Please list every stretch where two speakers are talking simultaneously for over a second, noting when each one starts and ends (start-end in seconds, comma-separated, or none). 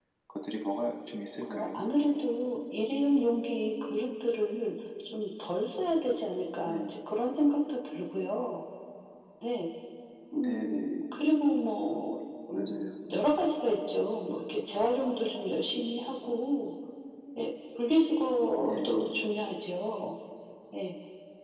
none